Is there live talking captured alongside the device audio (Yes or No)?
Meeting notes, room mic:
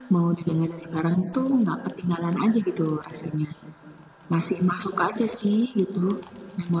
No